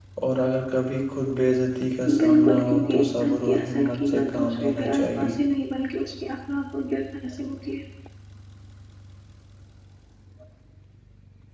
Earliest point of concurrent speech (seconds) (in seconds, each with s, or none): 2.1 s